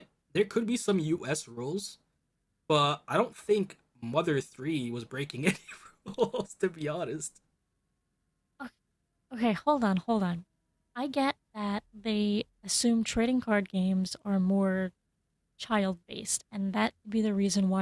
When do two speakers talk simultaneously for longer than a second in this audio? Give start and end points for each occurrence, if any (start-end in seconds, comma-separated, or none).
none